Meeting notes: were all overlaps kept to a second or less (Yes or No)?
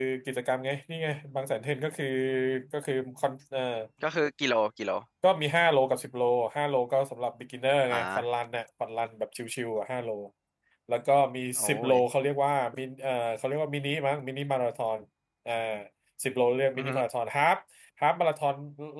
Yes